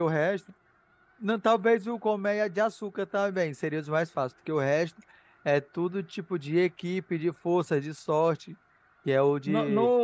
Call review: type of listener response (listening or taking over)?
taking over